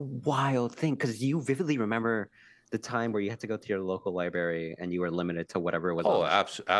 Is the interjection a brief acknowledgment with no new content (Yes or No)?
No